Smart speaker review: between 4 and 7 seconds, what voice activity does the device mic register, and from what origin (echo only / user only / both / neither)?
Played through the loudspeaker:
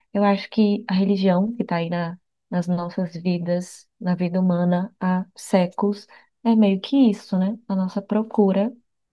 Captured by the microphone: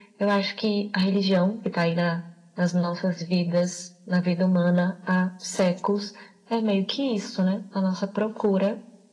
echo only